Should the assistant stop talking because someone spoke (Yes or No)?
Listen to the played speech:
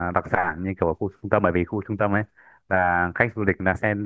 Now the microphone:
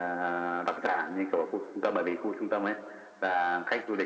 No